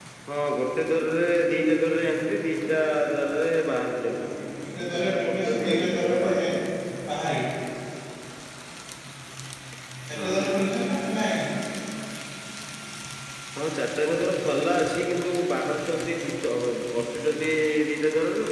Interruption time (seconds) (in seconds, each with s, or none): 4.9 s